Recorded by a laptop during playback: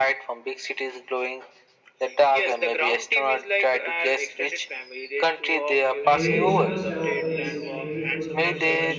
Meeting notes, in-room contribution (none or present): present